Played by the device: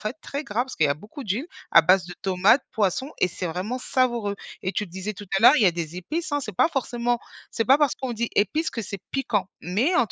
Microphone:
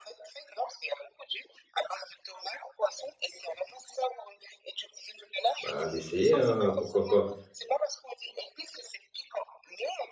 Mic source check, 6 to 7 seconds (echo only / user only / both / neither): both